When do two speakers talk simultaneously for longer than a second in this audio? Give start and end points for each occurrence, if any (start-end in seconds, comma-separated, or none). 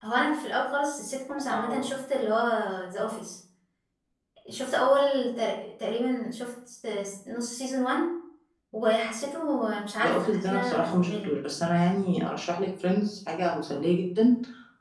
10.0-11.3